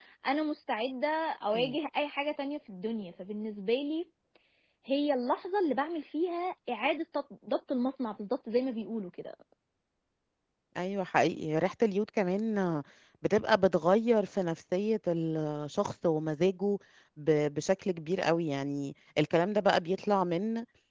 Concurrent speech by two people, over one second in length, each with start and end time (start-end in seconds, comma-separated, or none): none